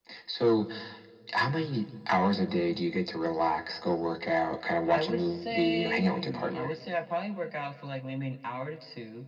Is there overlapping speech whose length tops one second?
Yes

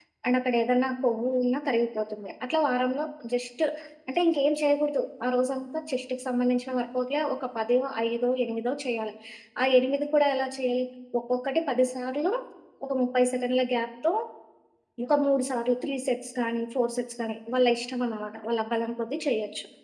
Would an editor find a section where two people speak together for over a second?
No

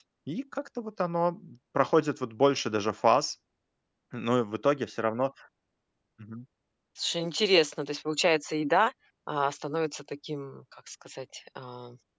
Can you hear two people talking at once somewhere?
No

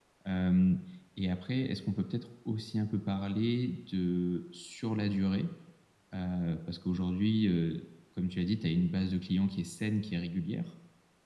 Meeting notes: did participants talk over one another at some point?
No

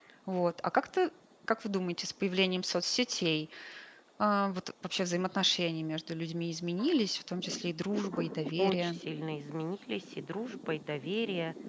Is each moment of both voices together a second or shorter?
Yes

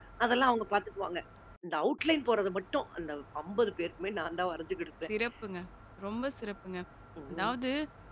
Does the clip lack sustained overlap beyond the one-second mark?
Yes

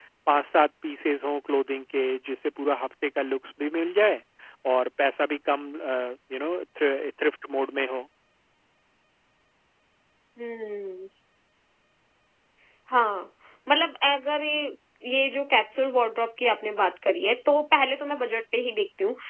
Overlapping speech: No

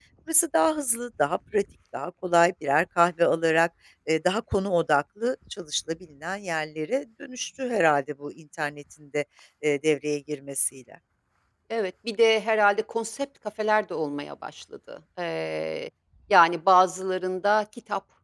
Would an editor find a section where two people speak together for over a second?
No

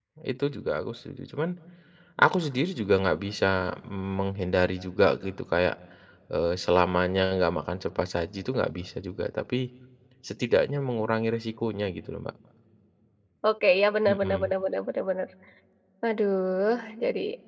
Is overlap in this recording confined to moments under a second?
Yes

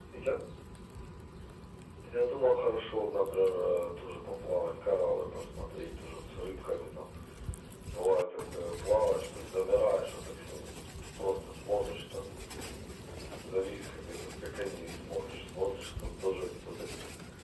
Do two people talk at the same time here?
No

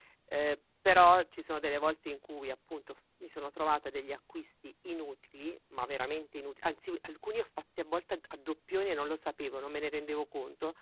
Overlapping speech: No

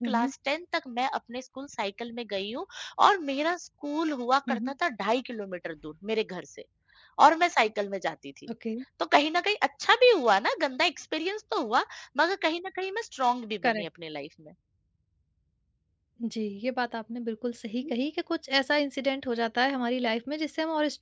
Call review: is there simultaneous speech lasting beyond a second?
No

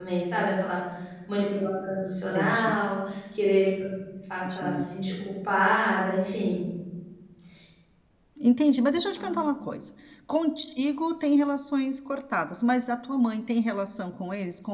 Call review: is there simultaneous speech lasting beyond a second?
No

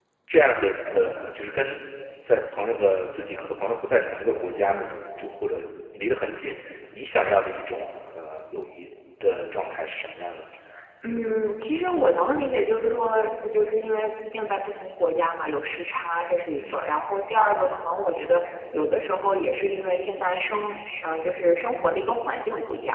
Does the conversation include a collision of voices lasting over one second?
No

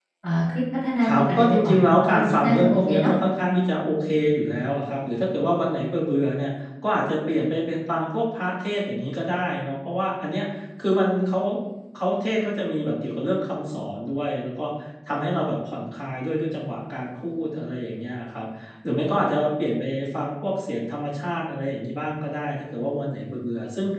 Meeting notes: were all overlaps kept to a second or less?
No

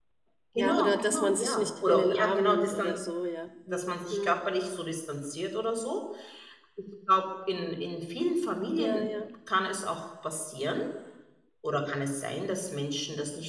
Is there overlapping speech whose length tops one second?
Yes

